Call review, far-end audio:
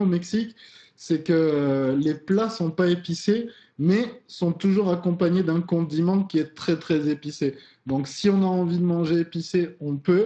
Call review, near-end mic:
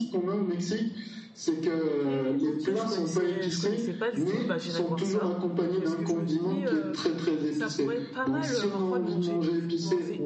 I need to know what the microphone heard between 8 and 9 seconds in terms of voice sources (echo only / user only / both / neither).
both